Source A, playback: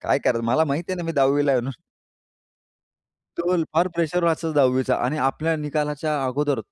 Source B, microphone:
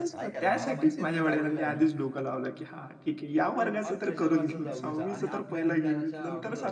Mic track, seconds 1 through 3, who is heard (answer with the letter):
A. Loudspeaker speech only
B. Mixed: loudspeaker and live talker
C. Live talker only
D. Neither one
B